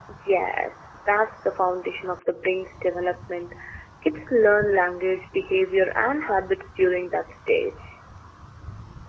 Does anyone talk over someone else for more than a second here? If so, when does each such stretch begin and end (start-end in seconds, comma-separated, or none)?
none